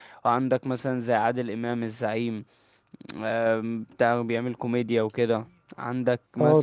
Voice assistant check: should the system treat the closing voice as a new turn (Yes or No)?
No